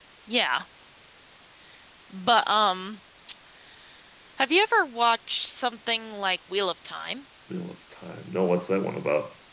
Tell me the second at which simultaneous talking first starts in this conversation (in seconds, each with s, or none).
none